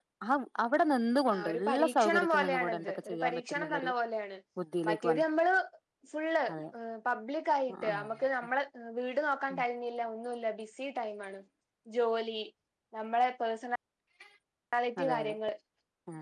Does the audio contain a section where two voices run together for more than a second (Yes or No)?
Yes